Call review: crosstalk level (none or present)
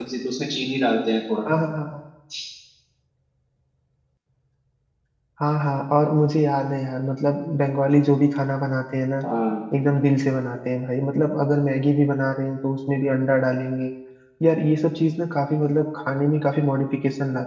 none